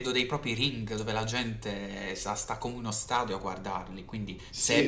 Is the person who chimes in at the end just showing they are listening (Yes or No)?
Yes